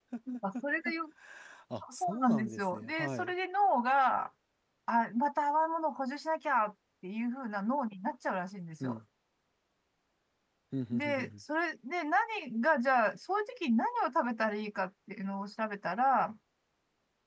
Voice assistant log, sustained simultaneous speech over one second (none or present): present